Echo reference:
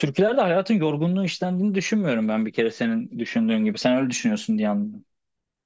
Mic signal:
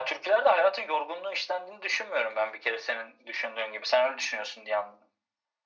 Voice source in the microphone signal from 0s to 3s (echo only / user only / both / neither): echo only